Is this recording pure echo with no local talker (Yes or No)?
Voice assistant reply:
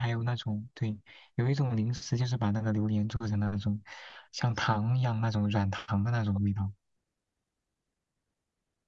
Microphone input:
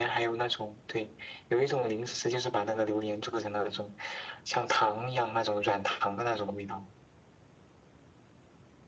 Yes